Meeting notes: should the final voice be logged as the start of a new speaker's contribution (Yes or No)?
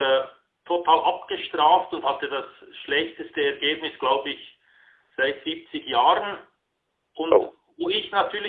No